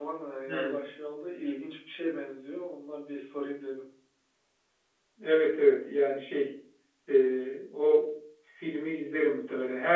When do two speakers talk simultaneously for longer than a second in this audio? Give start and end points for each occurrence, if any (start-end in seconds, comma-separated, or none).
none